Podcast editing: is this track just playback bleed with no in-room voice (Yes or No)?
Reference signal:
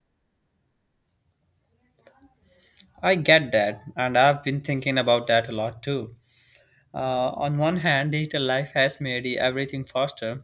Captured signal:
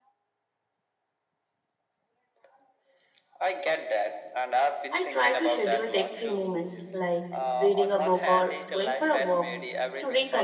No